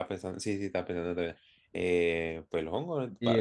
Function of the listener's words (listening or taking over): taking over